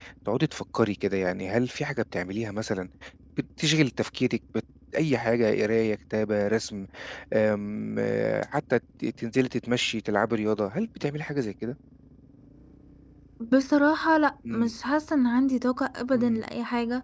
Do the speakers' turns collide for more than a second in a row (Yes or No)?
No